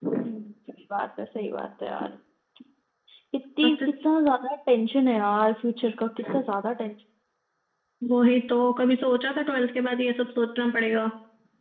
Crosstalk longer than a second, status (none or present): none